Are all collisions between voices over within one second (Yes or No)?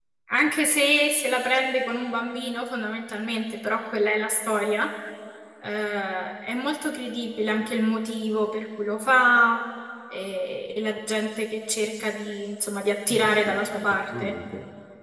No